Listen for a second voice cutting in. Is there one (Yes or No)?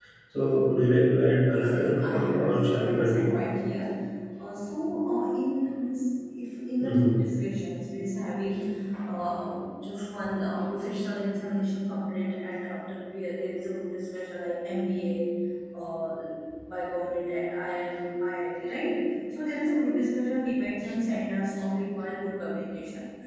Yes